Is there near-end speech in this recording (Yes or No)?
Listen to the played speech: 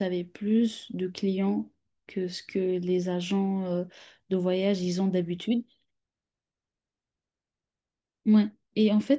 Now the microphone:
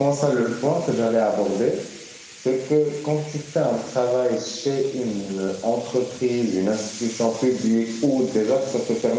Yes